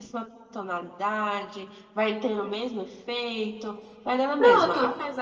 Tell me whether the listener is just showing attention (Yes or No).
Yes